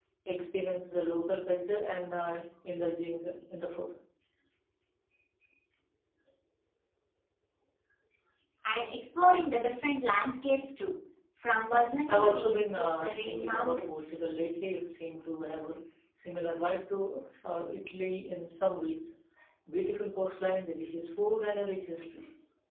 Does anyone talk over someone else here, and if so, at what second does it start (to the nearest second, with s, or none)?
12 s